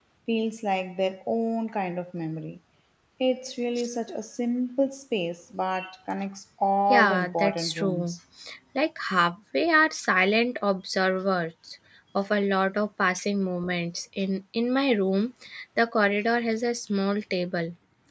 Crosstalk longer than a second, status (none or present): present